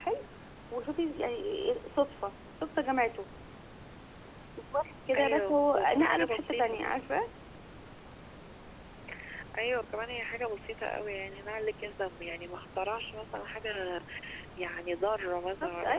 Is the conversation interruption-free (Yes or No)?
No